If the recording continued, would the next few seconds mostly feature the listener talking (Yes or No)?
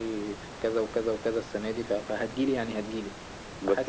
No